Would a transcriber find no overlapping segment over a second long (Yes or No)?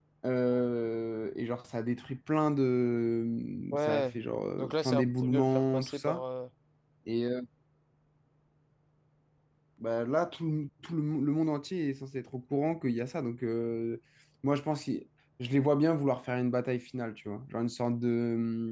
No